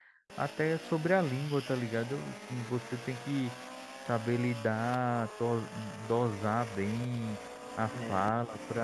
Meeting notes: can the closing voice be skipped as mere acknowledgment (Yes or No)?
Yes